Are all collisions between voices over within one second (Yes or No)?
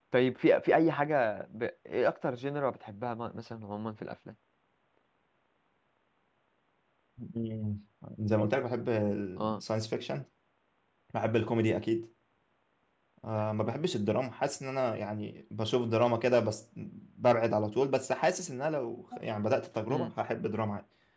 Yes